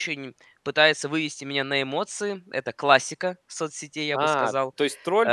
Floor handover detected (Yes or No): Yes